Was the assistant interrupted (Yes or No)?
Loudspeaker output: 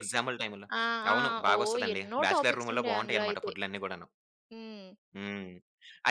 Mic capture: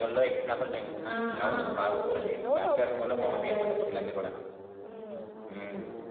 Yes